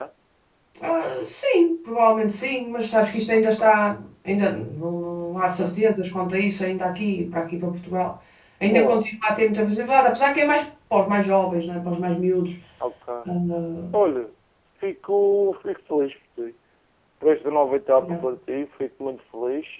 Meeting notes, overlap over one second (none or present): none